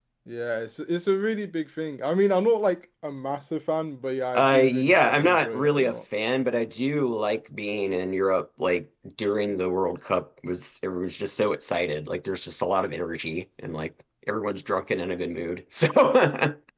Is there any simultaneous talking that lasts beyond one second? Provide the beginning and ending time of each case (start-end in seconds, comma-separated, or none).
4.3-6.0